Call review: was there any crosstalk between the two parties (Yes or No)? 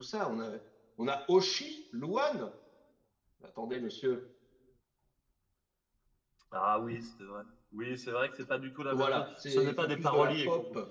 Yes